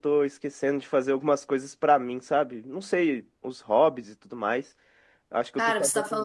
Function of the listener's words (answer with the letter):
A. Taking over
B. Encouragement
A